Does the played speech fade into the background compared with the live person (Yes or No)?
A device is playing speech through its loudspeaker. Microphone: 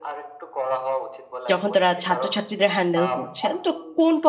Yes